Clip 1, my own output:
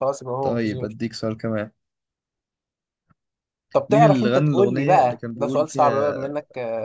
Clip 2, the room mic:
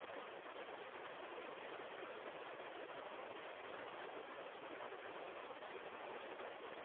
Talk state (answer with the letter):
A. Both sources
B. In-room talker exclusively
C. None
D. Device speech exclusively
C